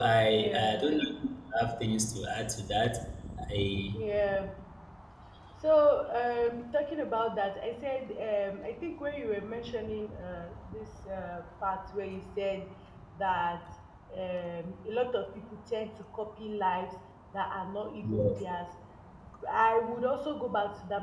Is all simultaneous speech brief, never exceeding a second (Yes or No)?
Yes